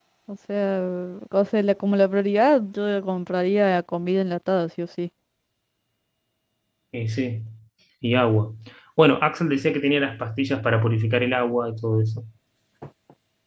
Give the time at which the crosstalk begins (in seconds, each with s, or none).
none